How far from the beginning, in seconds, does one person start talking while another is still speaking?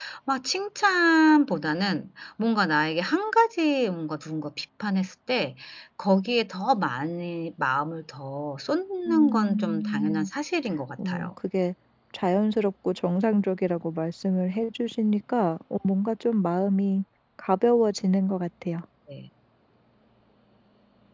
9 s

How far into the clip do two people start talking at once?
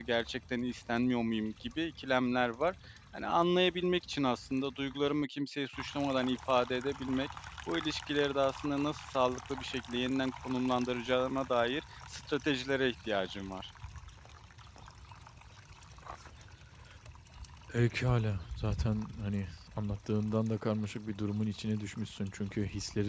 none

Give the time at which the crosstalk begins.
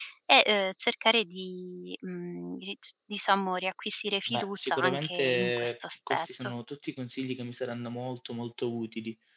4 s

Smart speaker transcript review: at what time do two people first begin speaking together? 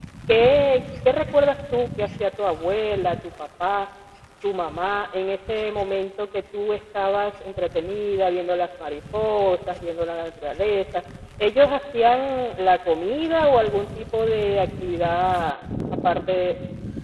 none

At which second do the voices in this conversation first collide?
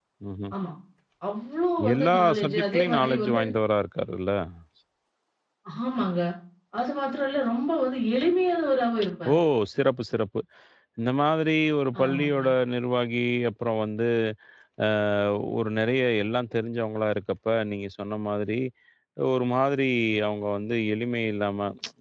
2 s

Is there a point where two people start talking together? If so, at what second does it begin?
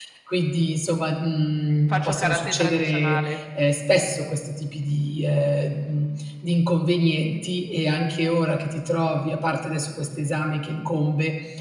2 s

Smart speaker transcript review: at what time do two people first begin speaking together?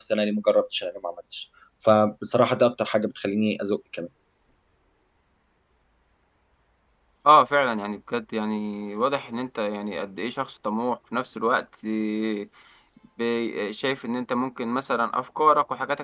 none

